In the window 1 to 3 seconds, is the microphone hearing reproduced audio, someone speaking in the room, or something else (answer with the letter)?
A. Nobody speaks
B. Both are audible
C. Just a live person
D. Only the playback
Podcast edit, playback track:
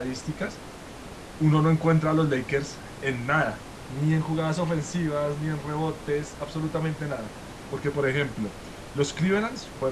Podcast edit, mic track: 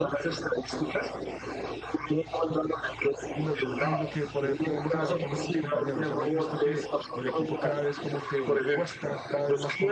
D